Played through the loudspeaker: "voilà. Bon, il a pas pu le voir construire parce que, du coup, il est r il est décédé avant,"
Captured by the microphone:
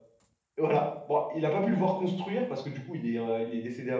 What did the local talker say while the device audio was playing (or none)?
none